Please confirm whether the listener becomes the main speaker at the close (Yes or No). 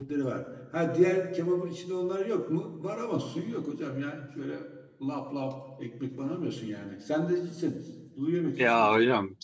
Yes